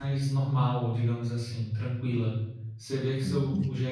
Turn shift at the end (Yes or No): No